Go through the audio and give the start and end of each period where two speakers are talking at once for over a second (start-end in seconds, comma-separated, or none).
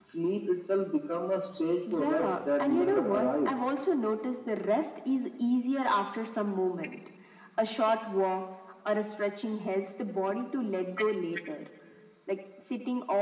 1.9-3.5